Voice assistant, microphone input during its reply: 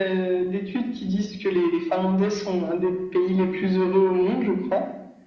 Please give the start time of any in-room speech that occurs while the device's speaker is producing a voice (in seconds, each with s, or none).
none